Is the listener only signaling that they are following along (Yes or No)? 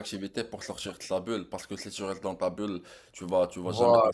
Yes